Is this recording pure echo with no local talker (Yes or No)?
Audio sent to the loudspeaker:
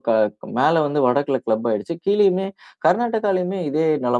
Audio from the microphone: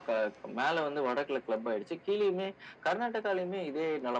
Yes